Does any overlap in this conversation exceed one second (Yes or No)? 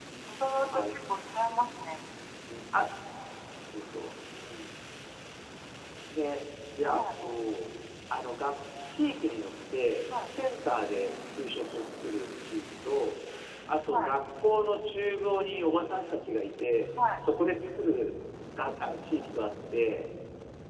No